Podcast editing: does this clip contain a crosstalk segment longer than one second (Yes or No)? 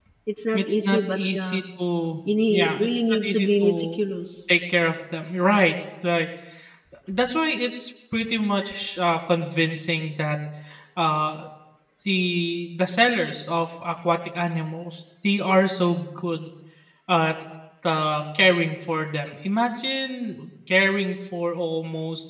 Yes